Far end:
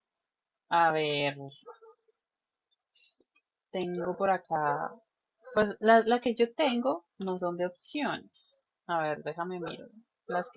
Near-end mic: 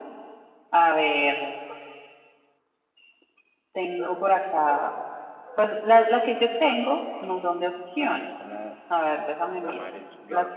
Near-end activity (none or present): present